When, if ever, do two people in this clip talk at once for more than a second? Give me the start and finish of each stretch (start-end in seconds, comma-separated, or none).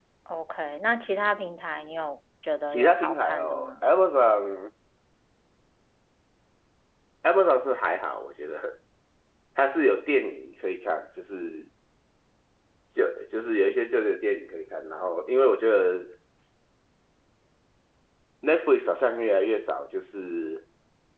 2.7-3.9